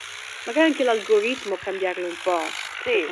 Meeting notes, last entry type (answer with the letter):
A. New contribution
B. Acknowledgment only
A